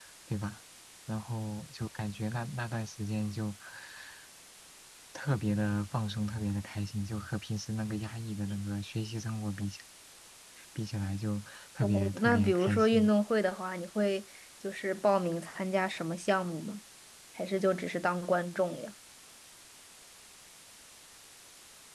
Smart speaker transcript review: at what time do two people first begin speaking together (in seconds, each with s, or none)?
11.8 s